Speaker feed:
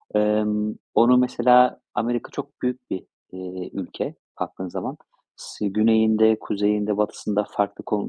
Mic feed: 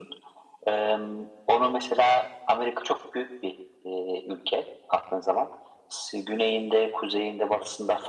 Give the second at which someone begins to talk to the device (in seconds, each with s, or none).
none